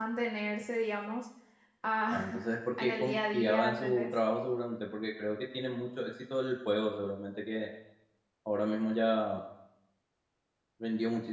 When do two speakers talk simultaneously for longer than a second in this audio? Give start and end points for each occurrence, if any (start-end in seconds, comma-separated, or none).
2.1-4.1